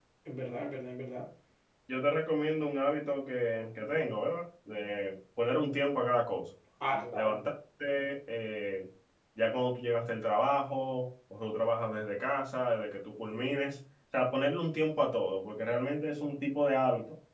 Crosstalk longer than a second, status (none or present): none